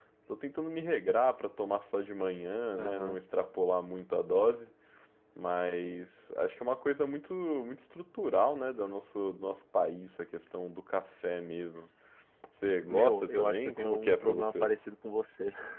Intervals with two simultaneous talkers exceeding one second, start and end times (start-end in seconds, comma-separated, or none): 12.9-14.7